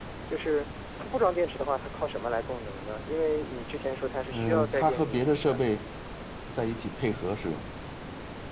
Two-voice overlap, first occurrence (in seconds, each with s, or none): 4.3 s